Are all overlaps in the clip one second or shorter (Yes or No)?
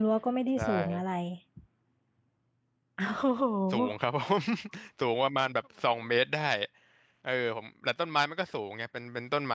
Yes